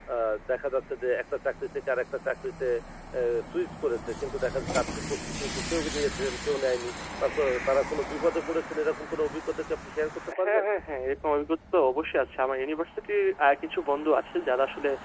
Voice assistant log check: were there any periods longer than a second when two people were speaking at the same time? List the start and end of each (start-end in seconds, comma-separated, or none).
none